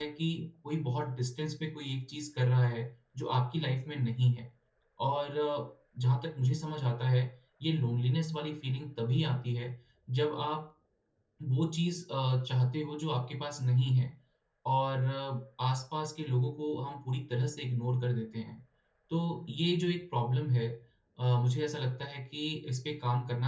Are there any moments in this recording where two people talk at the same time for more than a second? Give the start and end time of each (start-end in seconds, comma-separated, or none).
none